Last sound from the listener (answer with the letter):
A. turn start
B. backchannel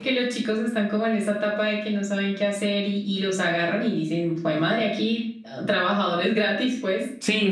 A